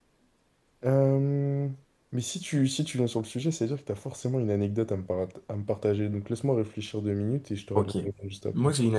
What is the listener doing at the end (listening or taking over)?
taking over